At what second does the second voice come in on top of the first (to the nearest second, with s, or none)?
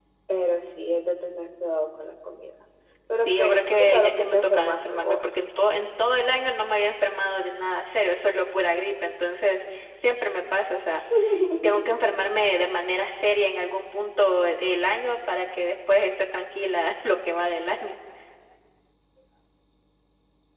3 s